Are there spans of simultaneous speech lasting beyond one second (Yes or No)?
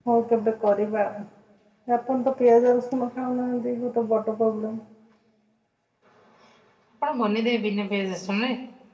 No